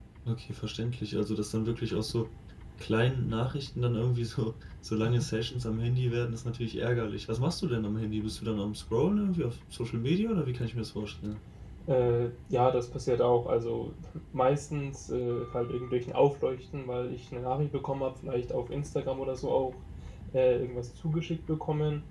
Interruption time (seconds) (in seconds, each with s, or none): none